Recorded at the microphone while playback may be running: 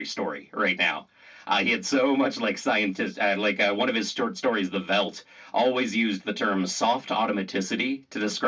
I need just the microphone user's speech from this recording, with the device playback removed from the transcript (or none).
none